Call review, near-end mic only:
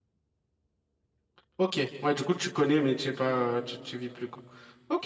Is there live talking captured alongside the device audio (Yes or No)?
Yes